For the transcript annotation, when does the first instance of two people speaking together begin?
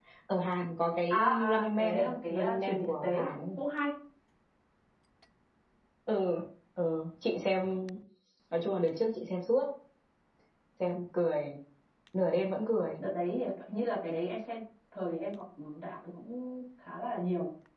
1 s

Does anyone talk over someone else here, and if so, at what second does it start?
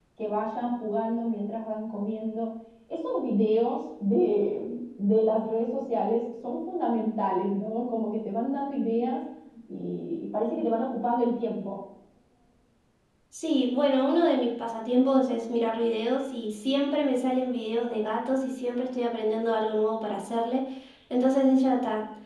none

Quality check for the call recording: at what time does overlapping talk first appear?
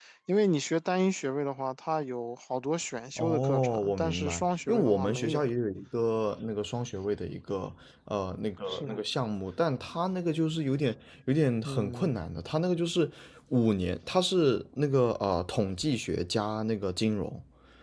3 s

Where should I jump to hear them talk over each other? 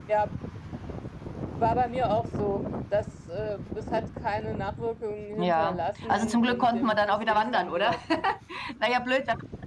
5 s

